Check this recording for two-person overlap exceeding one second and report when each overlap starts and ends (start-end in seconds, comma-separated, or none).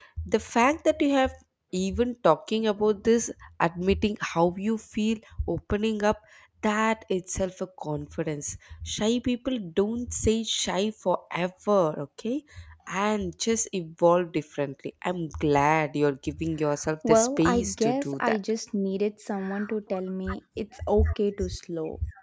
17.1-18.4